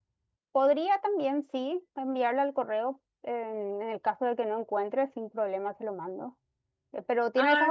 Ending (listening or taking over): listening